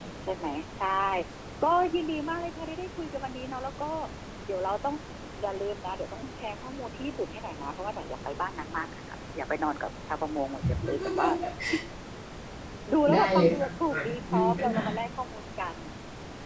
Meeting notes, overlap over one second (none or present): present